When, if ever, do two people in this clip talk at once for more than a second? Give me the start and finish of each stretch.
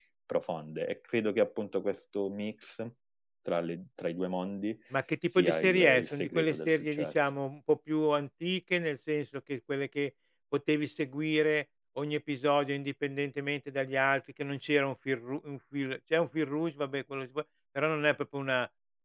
5.3-7.3

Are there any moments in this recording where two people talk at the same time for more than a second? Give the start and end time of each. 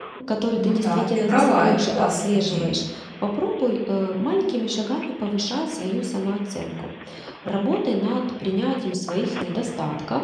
0.5-2.8

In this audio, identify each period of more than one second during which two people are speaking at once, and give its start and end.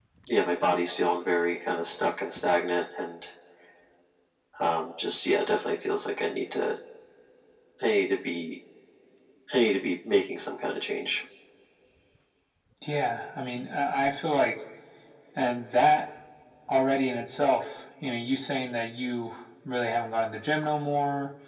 none

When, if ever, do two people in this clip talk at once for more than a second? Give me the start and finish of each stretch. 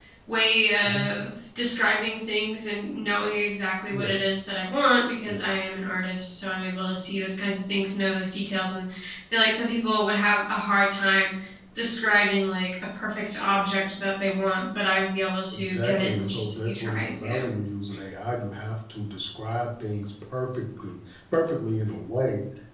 15.5-17.4

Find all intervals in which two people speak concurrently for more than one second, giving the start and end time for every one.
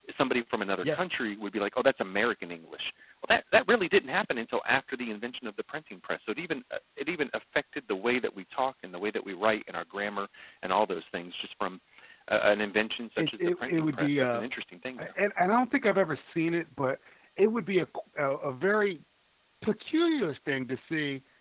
13.2-14.4

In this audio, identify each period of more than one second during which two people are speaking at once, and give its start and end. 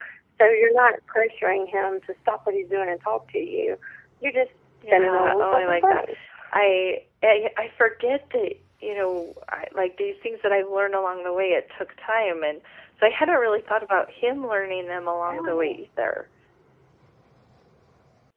4.8-6.1

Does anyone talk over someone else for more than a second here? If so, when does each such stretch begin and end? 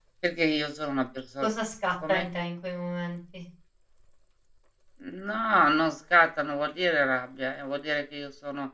none

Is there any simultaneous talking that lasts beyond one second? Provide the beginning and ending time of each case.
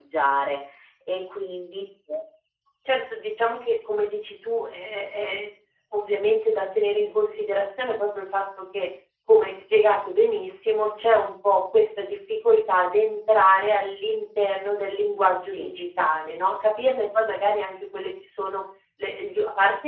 none

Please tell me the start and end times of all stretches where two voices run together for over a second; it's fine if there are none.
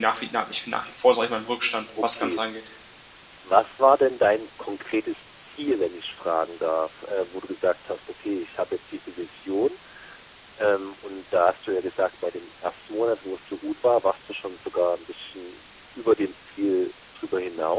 none

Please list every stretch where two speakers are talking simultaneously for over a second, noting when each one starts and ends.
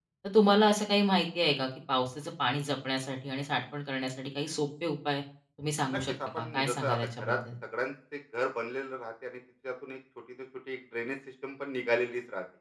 5.9-7.4

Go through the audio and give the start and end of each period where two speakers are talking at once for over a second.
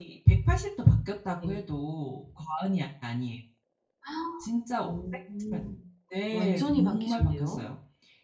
6.3-7.7

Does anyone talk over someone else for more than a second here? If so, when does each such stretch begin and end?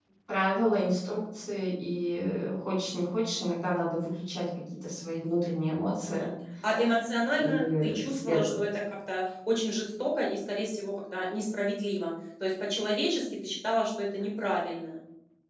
7.4-8.6

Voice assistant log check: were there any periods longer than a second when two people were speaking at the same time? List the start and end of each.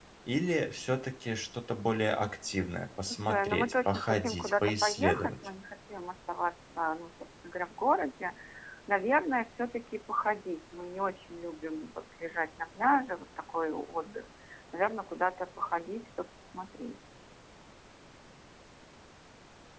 3.1-5.4

